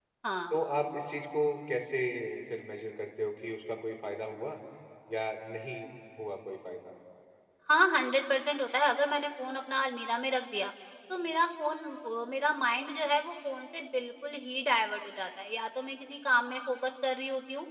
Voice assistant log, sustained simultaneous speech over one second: none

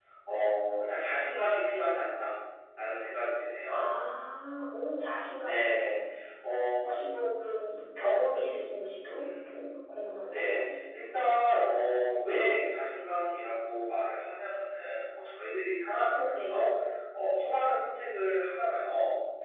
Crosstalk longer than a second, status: none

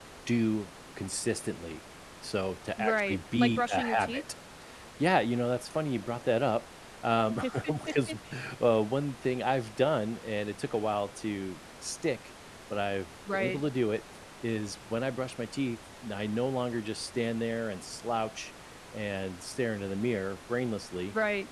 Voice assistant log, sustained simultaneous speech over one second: present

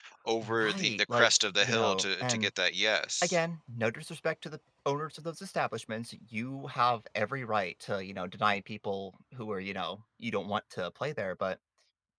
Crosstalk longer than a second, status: present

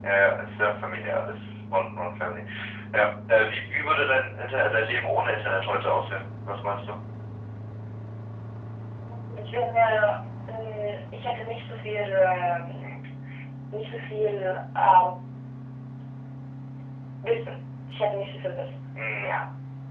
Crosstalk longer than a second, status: none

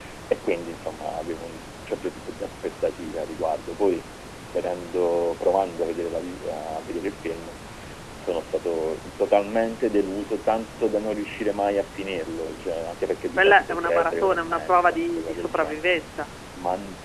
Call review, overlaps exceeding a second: present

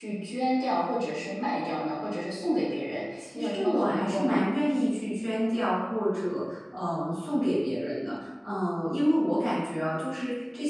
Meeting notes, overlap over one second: present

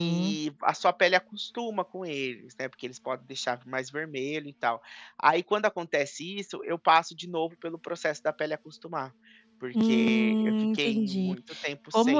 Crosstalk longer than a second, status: present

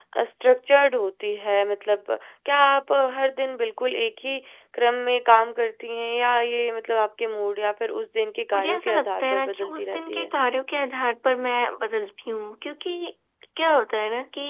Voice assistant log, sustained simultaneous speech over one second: present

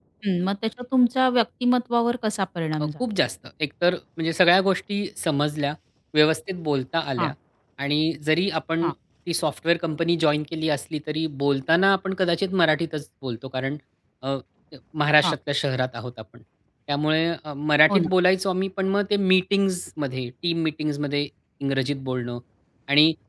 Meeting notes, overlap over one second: none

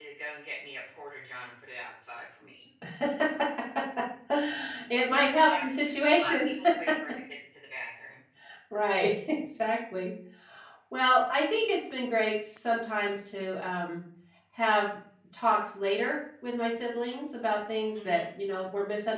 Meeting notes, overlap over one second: present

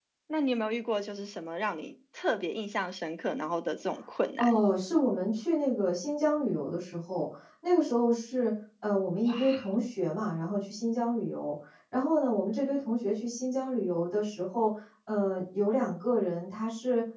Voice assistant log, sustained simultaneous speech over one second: none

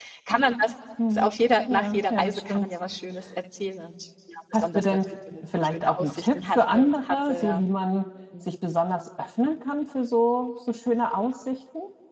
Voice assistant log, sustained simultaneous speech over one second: present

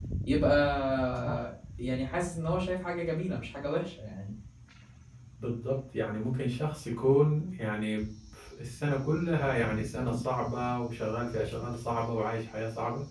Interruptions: none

